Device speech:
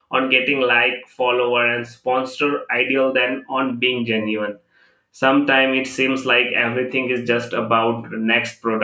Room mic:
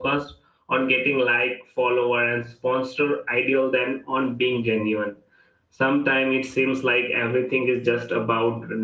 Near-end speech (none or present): none